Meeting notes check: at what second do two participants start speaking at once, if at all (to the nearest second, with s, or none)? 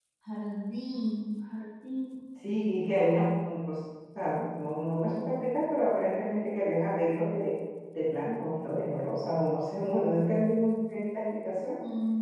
none